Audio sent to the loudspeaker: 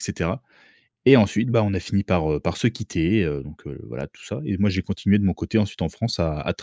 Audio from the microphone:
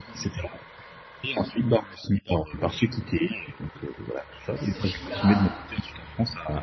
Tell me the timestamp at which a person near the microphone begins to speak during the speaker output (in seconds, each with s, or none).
4.6 s